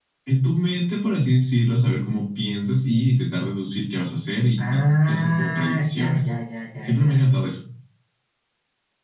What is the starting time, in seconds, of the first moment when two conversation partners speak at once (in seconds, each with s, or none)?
4.6 s